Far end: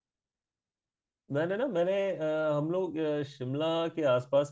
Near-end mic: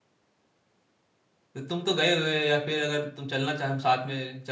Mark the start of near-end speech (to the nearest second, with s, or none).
2 s